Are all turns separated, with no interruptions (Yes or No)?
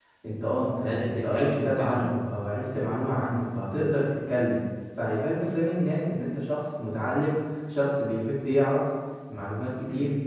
No